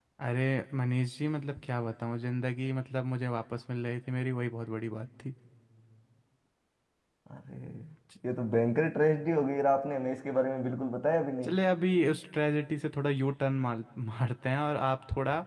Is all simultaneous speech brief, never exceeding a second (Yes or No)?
Yes